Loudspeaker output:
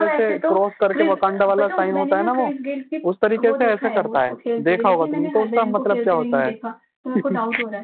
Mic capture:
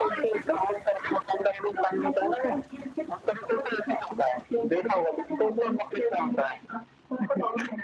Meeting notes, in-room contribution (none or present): none